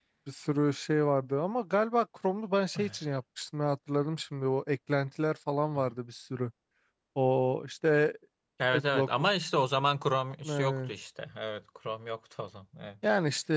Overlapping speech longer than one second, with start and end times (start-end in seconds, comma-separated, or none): none